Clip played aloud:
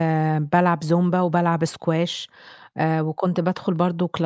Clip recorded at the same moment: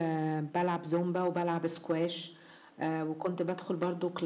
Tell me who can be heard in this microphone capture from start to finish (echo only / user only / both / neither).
echo only